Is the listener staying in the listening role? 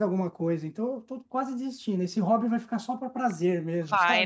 No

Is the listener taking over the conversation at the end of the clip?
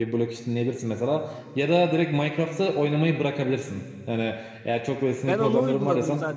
Yes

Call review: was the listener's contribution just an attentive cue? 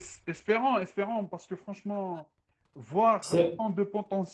Yes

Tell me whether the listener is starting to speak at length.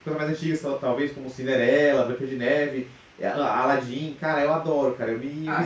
Yes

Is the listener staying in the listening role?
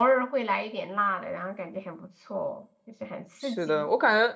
No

